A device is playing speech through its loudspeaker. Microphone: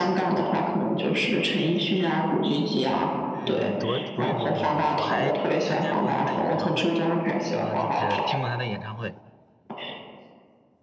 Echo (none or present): present